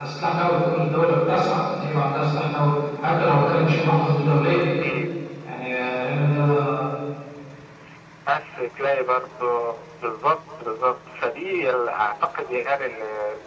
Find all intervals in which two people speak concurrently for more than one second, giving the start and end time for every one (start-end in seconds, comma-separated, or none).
none